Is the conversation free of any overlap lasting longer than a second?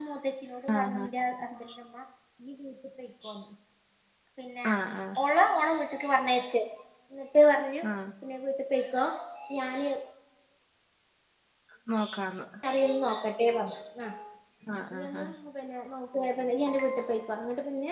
Yes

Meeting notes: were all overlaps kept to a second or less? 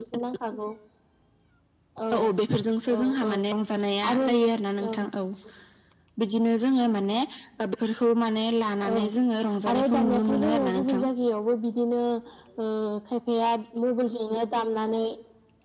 No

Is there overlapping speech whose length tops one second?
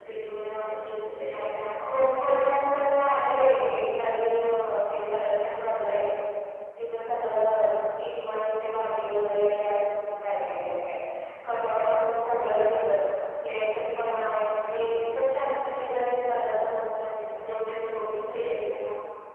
No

